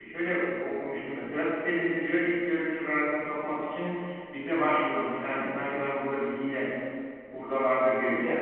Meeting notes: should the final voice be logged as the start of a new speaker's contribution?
Yes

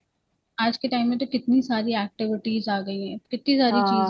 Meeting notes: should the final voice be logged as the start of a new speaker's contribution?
Yes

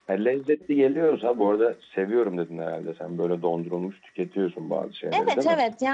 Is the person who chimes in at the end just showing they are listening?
No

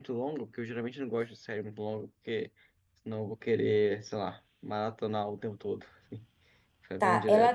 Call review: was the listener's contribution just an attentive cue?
No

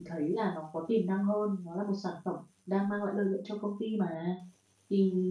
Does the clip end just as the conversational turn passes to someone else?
No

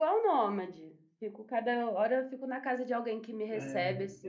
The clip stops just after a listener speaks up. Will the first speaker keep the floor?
No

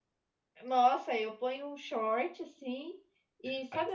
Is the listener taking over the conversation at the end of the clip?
No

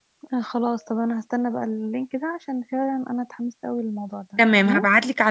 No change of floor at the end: No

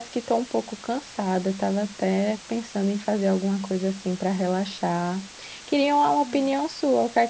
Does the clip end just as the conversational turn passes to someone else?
No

